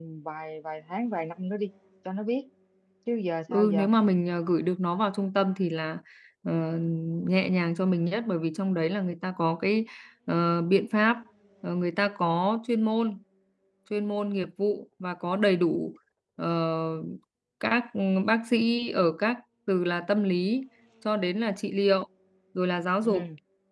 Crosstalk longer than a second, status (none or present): none